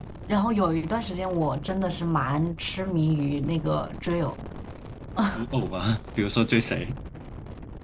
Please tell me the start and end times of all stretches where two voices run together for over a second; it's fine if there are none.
none

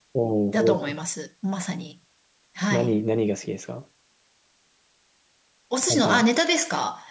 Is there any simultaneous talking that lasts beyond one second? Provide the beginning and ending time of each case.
none

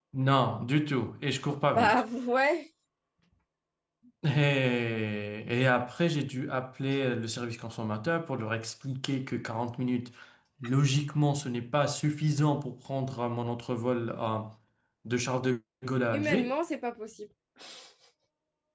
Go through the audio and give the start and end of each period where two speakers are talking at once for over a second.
none

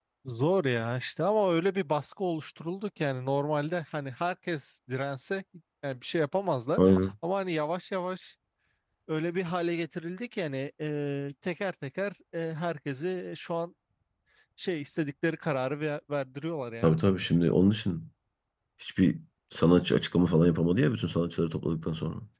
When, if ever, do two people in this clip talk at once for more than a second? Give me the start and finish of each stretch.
none

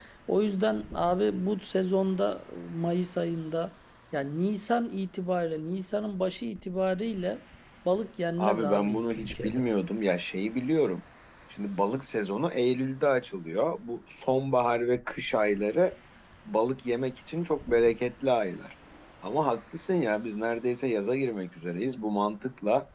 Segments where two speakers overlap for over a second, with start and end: 8.4-9.7

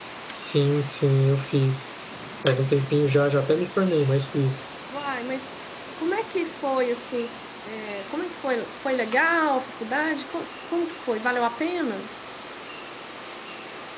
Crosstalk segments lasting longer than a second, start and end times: none

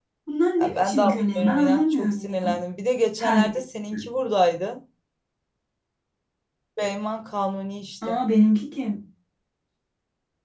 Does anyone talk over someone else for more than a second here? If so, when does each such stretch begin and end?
0.6-2.5

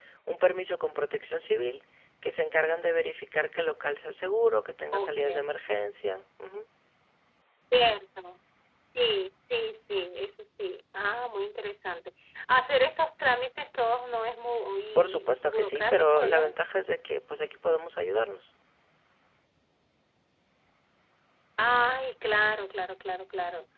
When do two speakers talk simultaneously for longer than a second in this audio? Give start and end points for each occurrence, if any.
14.9-16.5

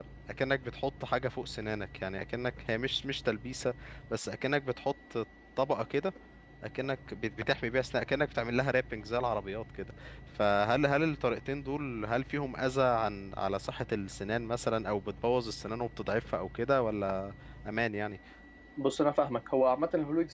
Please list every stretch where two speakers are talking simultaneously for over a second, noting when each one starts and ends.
none

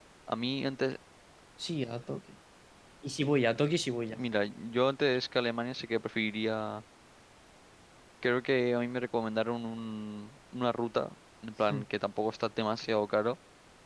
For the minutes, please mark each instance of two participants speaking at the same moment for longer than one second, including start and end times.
none

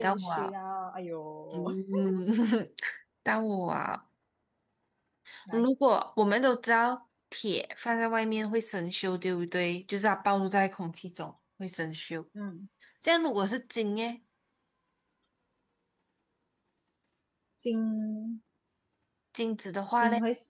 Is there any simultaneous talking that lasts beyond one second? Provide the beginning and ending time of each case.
none

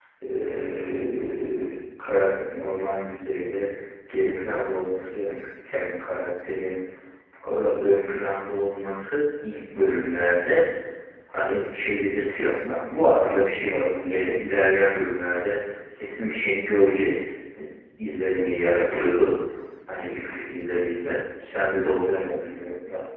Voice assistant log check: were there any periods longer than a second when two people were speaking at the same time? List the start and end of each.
none

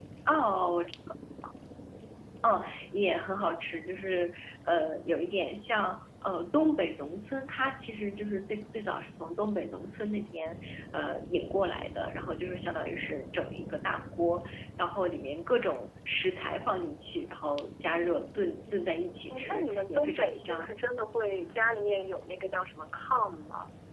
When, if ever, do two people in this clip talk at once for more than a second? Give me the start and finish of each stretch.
19.3-20.8

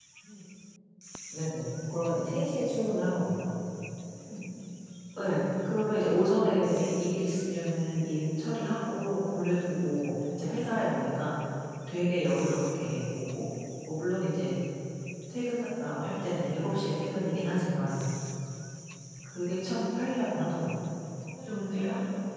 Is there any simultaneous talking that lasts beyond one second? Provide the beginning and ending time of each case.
none

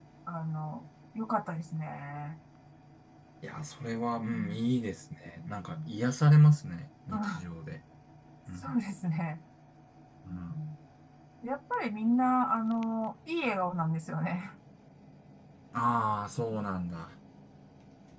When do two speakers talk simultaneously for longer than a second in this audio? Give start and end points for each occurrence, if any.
none

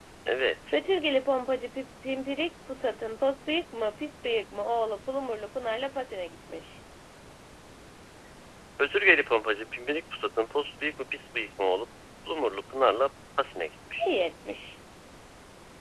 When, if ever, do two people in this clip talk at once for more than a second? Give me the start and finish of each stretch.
none

